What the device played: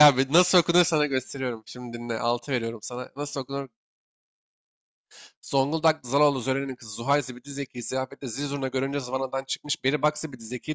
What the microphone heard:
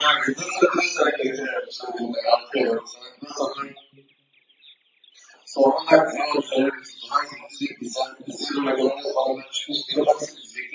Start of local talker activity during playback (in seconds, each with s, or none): none